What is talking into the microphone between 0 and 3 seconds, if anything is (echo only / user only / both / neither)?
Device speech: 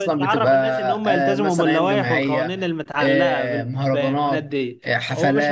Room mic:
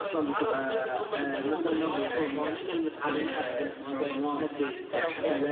echo only